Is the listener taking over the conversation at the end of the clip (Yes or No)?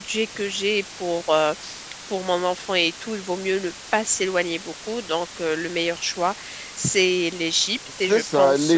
Yes